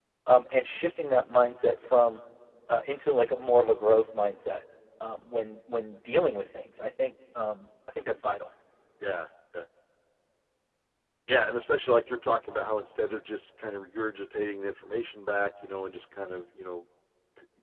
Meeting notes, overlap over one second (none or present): none